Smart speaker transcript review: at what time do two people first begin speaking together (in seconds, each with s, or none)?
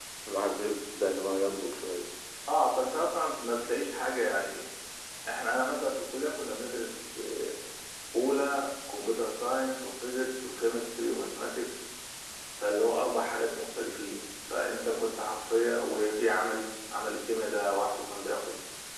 none